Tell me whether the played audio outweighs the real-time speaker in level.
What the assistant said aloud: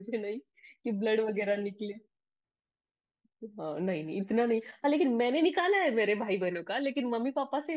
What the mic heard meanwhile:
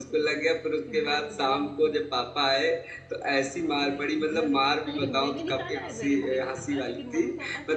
No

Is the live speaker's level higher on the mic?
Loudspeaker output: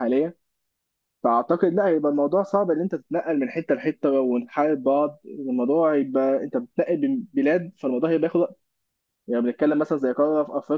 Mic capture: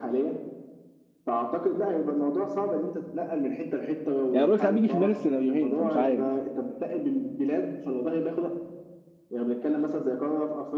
Yes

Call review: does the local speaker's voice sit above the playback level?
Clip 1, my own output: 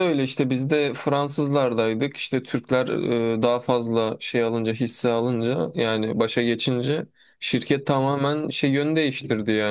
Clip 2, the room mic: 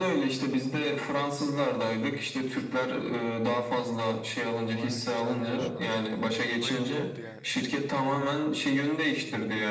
No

